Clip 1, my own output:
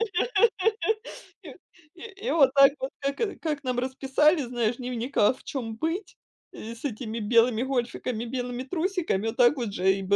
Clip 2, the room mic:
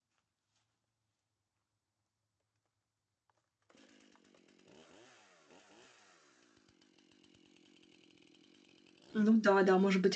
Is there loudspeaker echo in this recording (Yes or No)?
No